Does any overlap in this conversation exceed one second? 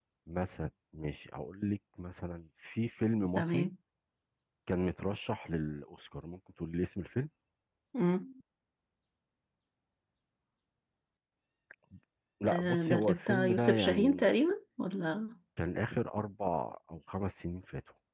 Yes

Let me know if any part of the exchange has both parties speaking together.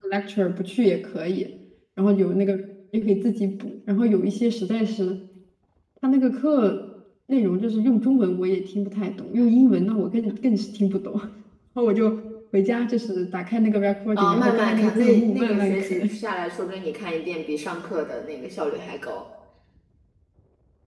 Yes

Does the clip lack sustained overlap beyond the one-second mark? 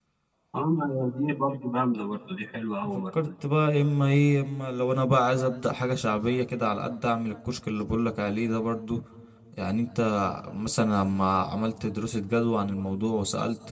Yes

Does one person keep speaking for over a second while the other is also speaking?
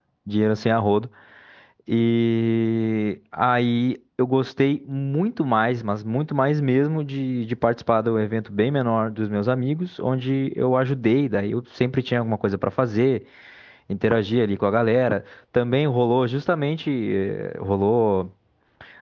No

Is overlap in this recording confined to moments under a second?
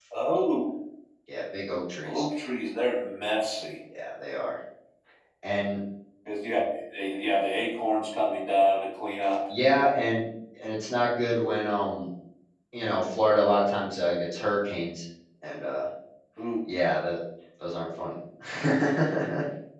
Yes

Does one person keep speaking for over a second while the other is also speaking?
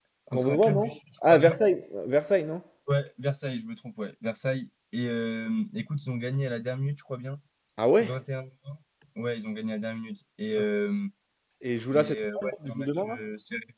Yes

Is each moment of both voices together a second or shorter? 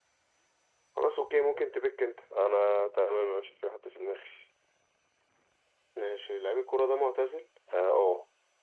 Yes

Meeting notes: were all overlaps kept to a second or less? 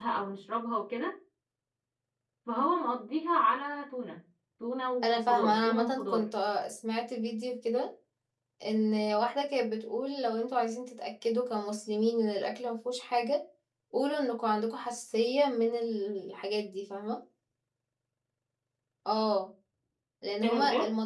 No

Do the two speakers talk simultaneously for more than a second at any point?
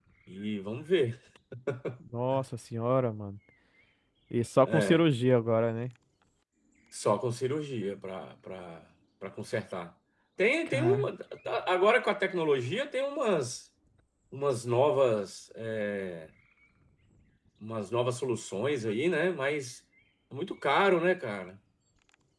No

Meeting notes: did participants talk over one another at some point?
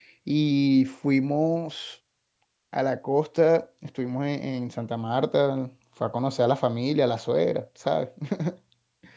No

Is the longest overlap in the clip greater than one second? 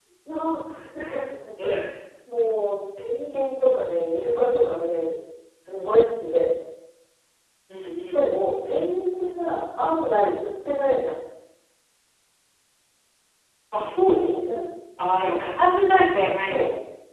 No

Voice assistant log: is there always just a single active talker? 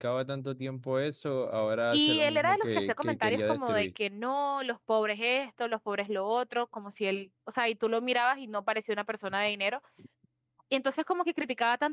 No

